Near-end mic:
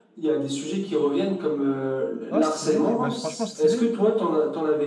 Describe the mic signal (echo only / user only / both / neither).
both